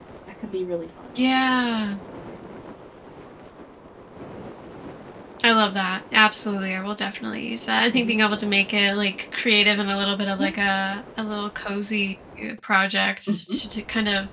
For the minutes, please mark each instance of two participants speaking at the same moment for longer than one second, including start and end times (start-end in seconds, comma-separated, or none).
none